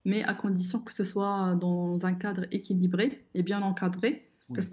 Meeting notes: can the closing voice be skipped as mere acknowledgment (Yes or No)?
Yes